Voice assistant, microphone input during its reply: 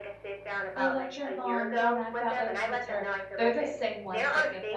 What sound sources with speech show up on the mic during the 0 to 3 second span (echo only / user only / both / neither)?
both